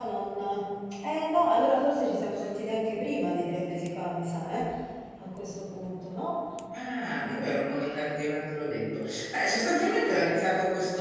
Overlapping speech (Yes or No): No